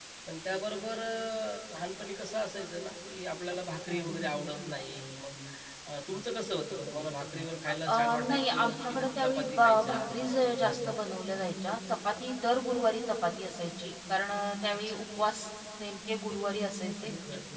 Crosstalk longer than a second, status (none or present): present